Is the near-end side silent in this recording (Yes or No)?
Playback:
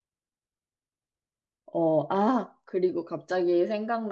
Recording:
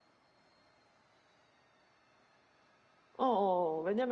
No